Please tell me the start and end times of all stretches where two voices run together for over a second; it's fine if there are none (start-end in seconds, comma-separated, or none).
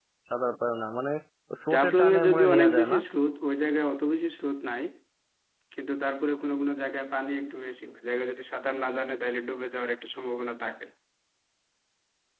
1.7-3.0